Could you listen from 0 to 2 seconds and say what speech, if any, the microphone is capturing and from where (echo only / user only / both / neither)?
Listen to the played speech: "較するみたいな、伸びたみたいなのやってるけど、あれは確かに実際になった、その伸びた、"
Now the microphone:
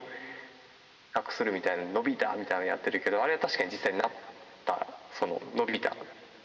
echo only